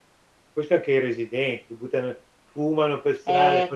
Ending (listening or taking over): taking over